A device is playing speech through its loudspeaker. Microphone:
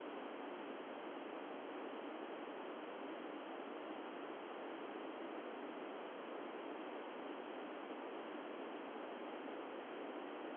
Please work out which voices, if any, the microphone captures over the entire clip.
neither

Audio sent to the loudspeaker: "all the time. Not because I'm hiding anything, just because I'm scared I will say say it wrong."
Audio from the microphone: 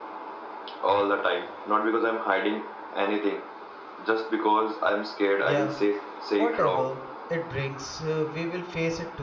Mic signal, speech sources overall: both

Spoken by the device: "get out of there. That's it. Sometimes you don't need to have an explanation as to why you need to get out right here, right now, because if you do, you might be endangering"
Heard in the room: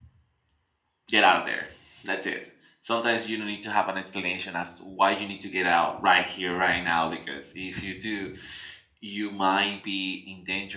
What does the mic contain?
echo only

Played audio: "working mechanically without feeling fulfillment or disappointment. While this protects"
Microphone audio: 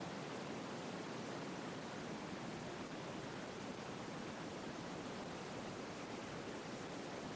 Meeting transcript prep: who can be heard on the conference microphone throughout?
neither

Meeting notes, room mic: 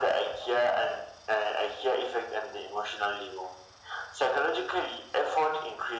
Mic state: echo only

